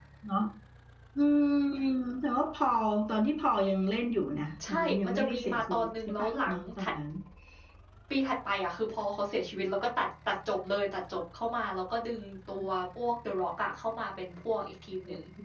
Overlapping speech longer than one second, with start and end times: 4.7-6.9

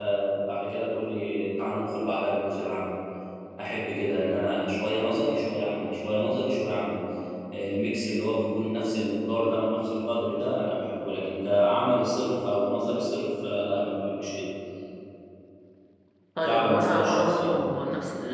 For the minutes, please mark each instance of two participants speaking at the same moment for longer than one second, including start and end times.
16.4-17.6

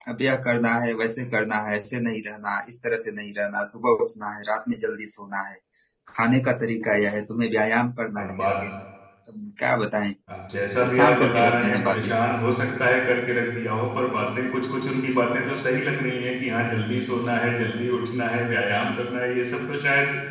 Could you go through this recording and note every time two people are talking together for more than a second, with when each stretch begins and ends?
10.8-12.2

